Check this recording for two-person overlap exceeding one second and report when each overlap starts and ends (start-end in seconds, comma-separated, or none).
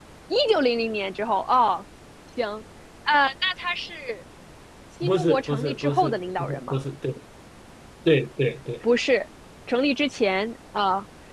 5.0-6.8